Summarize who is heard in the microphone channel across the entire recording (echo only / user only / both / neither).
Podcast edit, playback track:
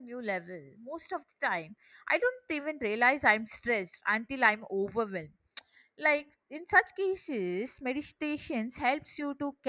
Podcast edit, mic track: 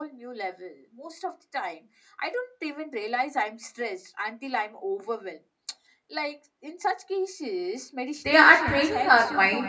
both